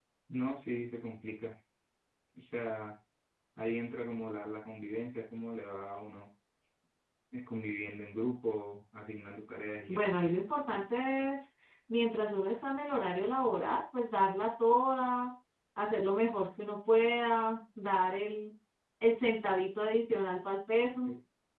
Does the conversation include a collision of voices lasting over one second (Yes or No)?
No